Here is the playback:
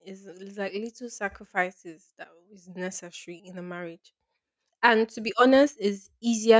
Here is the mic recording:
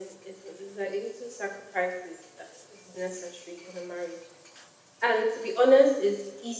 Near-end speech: none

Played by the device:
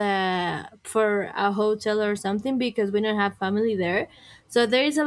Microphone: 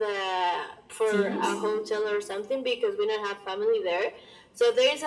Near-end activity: present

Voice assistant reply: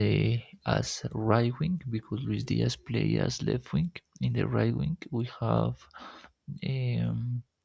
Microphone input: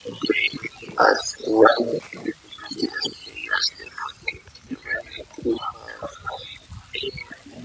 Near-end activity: none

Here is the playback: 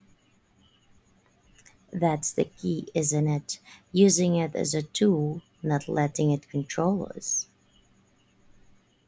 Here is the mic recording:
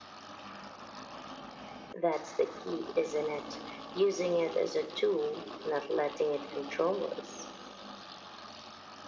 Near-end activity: none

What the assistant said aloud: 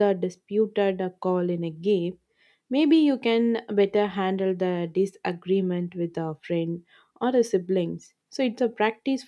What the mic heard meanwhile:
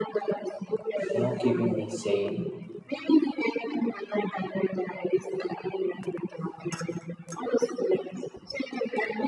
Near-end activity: present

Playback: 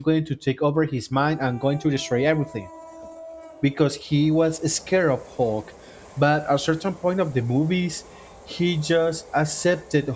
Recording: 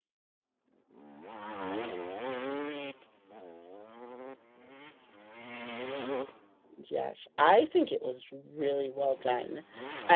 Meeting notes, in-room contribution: present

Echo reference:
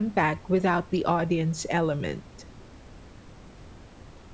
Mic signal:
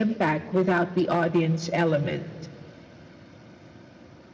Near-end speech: none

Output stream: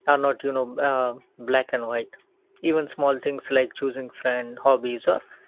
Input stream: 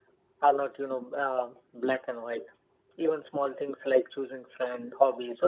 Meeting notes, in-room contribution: none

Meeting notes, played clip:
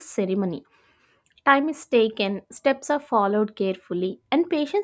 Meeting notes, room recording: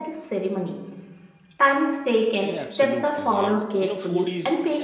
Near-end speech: present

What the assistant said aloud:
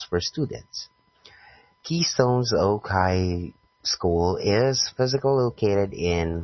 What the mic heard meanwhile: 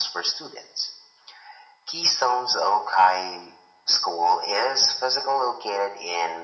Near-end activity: none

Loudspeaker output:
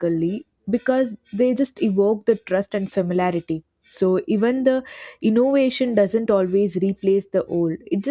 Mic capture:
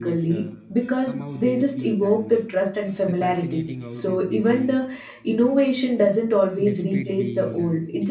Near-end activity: present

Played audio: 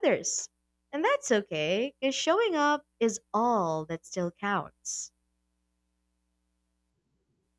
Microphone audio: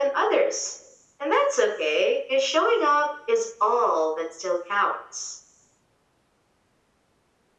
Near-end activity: none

